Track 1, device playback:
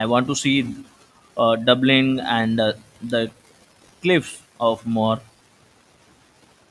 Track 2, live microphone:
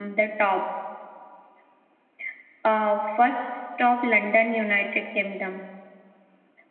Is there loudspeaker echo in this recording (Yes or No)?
No